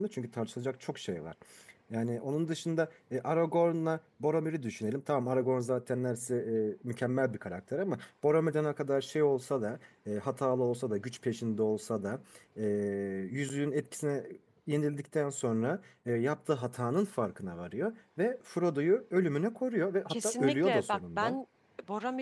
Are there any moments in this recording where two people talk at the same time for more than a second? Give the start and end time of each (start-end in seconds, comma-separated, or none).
20.1-21.4